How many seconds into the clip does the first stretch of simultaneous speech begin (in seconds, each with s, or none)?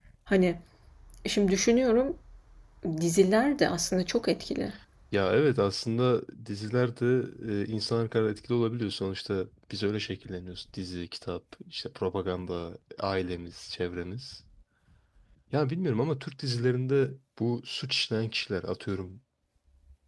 none